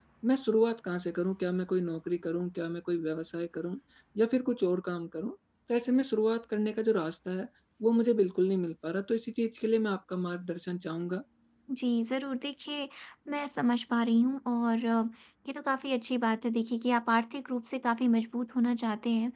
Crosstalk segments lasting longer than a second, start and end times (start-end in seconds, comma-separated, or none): none